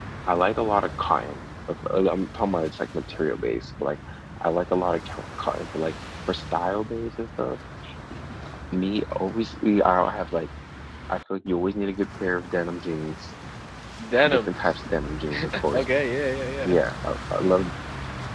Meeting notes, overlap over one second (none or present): none